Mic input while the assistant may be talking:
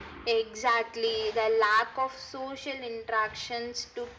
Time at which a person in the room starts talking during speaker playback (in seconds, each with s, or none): none